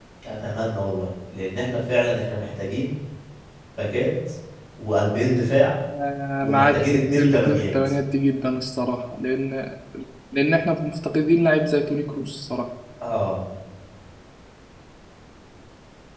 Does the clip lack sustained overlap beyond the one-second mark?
No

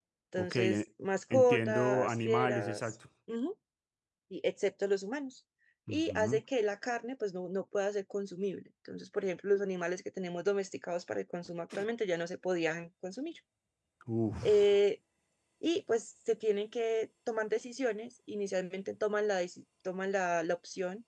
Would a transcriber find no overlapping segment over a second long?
No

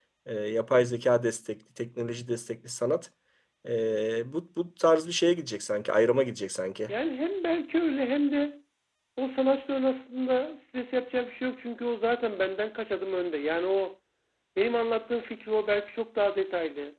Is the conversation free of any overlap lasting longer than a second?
Yes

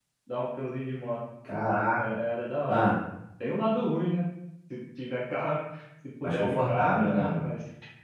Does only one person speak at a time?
No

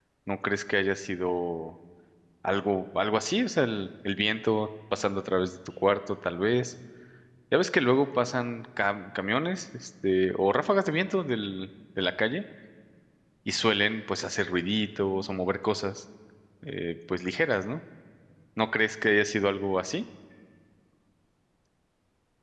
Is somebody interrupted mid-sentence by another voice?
No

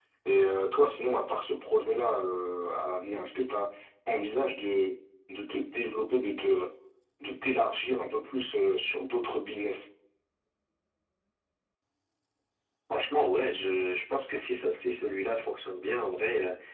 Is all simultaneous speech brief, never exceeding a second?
Yes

